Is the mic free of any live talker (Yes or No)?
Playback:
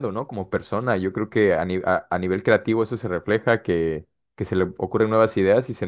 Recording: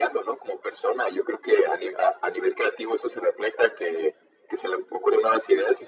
Yes